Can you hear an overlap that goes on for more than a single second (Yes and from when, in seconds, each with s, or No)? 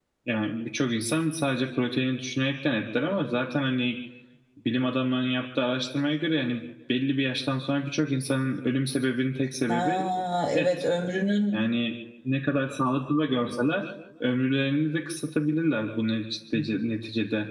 No